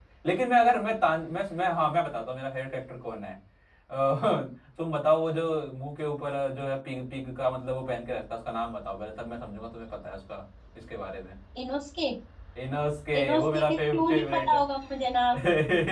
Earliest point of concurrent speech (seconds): 13 s

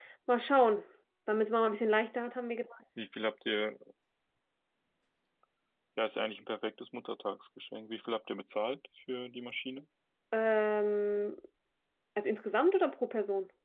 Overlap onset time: none

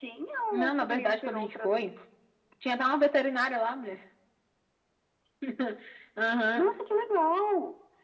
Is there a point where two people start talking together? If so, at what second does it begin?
1 s

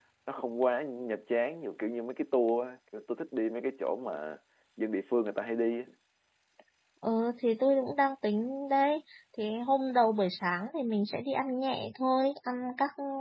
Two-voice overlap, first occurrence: none

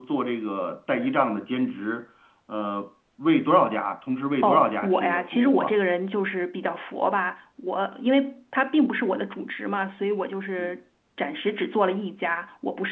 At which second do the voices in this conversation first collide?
4 s

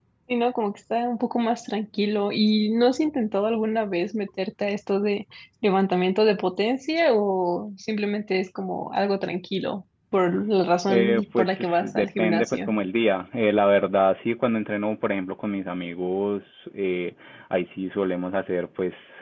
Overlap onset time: 11 s

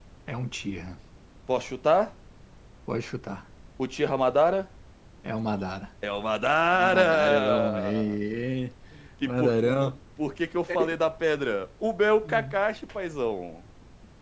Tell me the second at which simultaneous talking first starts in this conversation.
7 s

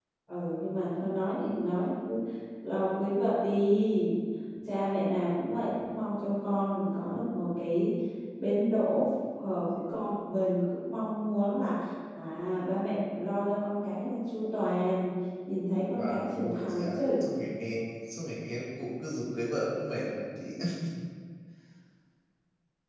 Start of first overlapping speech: 16 s

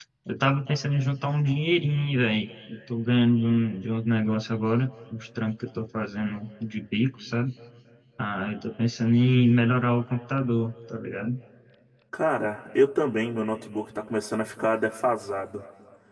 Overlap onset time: none

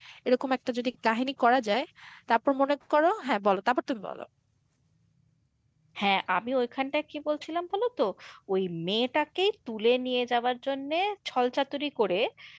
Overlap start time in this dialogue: none

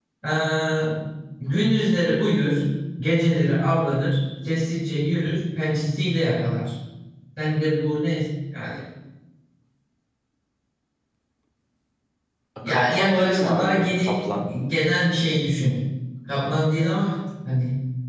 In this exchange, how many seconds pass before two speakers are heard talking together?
13 s

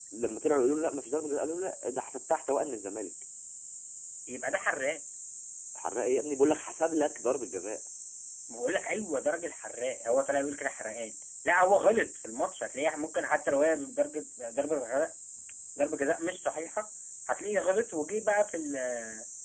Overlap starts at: none

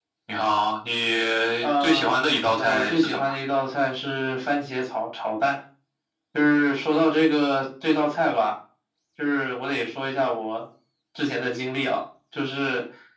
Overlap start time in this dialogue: 2 s

